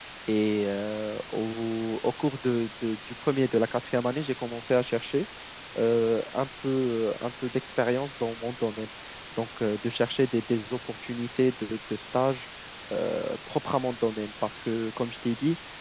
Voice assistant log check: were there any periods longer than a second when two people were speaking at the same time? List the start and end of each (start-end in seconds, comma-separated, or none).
none